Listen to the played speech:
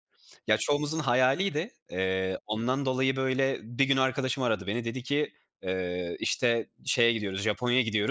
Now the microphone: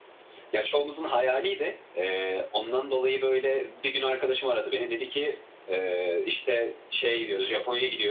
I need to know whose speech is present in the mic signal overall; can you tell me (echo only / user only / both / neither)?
echo only